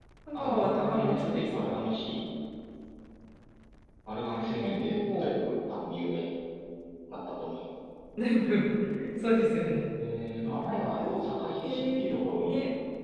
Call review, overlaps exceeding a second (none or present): present